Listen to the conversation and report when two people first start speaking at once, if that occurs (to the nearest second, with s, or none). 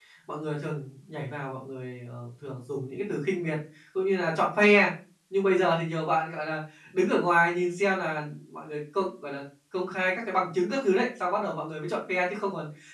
none